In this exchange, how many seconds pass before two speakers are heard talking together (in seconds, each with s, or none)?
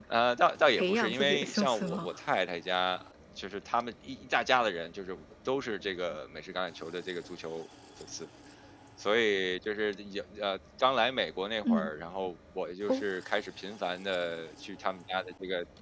0.8 s